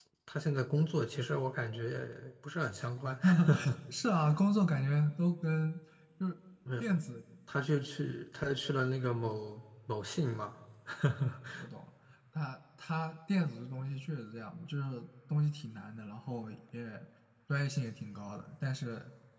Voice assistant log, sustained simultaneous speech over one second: none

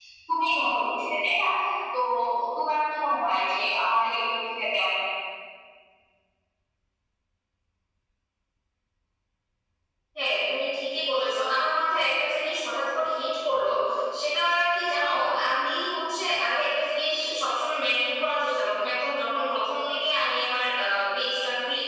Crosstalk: none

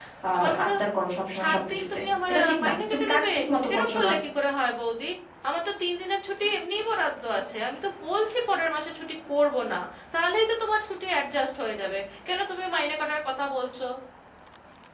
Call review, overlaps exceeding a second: present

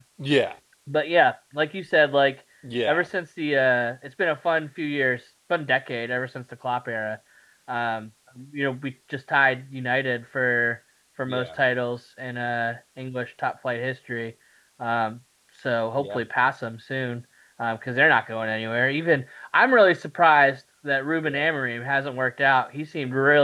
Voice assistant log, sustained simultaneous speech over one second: none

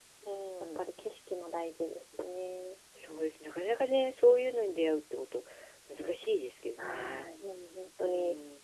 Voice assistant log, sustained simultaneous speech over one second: none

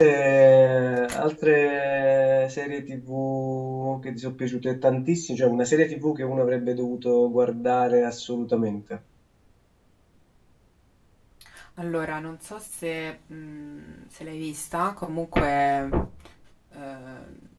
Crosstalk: none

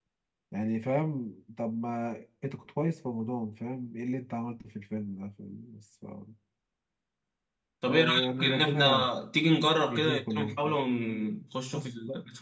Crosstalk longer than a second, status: present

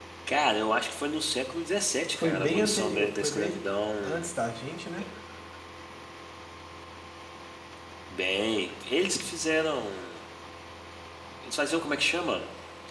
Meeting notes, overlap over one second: present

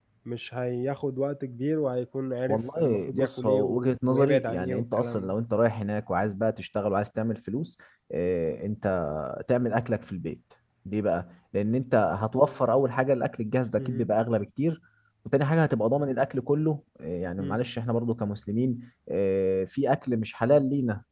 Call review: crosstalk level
present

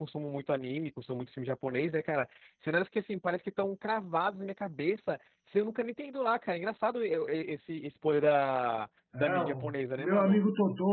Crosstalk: present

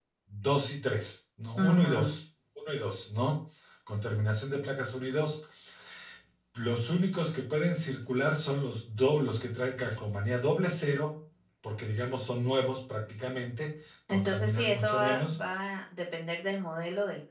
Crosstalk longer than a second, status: present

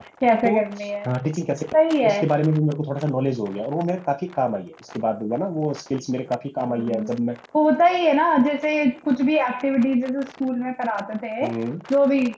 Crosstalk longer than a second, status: none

